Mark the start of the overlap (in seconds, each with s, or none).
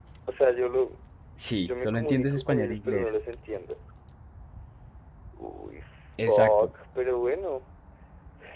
1.6 s